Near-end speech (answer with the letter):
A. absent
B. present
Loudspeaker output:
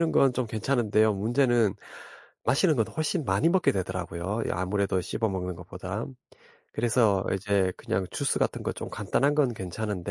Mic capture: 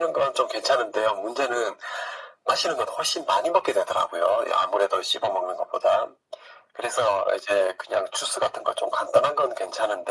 A